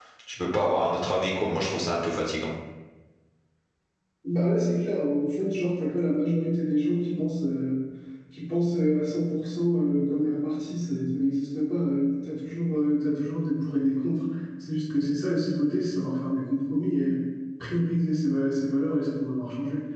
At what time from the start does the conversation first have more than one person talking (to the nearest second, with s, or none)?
none